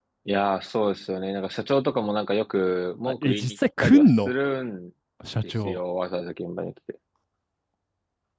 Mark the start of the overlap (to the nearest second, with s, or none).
3 s